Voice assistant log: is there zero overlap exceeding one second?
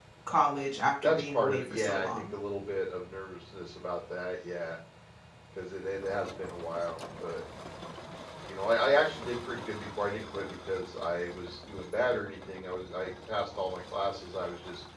No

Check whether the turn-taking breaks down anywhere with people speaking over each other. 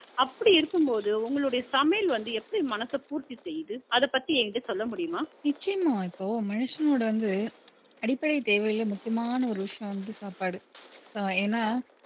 No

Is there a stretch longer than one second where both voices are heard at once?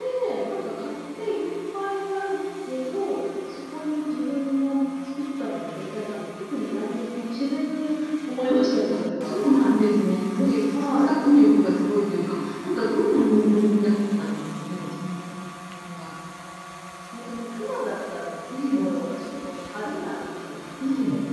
No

